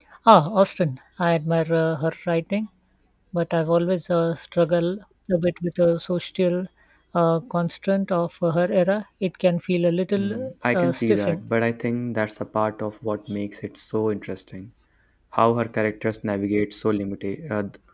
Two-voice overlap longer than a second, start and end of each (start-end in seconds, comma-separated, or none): 10.2-11.4